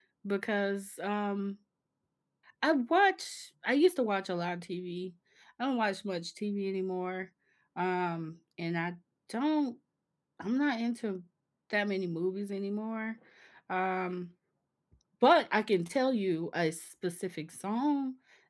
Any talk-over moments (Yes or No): No